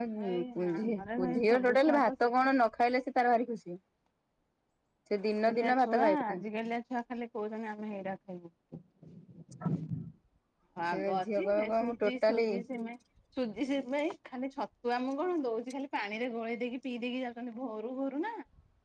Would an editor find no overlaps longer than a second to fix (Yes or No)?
No